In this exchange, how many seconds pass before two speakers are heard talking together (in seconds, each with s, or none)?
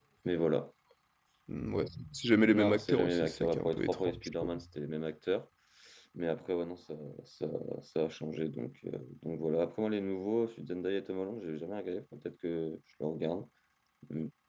2.5 s